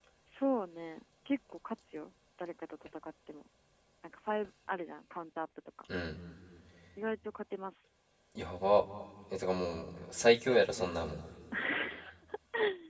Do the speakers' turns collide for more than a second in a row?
No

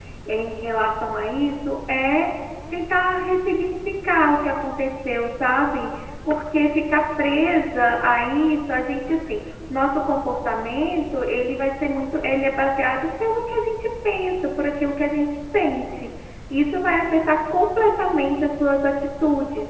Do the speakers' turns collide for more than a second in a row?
No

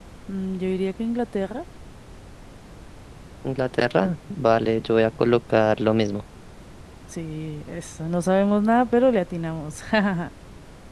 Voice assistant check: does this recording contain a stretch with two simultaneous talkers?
No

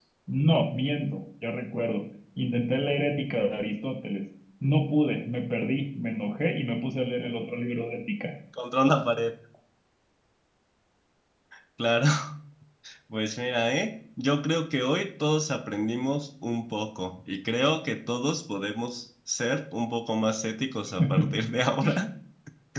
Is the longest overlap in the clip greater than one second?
No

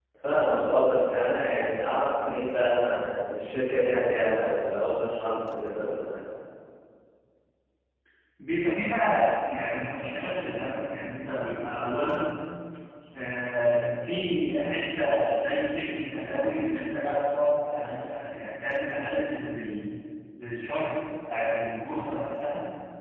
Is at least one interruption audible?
No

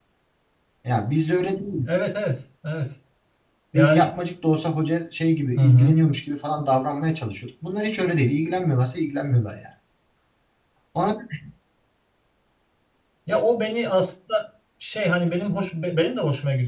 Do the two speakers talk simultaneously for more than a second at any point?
No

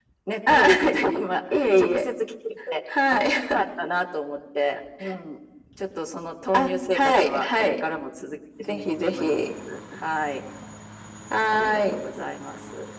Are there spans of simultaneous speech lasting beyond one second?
Yes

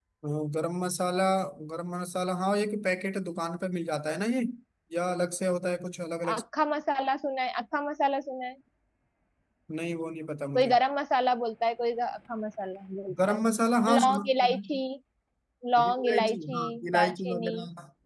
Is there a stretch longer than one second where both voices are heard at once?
Yes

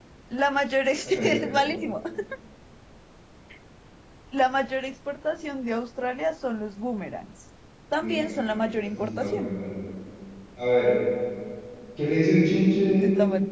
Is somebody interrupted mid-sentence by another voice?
Yes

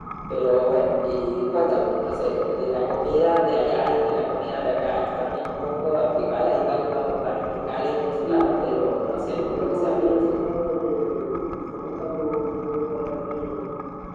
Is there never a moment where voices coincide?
No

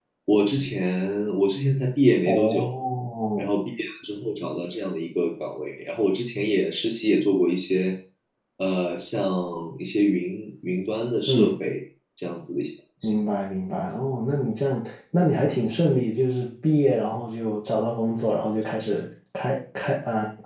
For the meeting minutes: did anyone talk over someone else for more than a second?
No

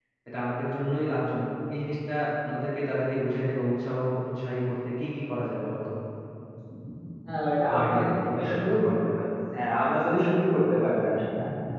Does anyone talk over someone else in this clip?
Yes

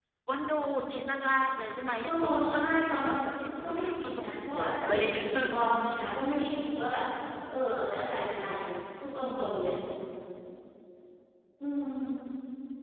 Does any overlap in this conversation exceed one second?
Yes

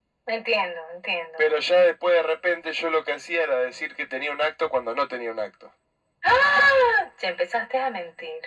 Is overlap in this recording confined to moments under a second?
Yes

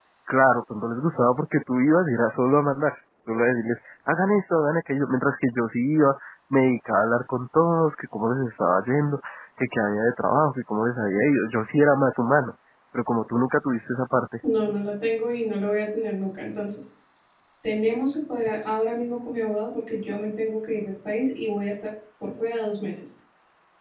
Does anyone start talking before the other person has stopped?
No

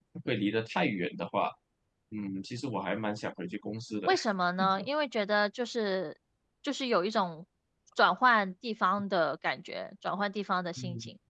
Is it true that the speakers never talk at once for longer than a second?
Yes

